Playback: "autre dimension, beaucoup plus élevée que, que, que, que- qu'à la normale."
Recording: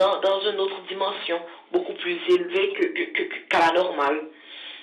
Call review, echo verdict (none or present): present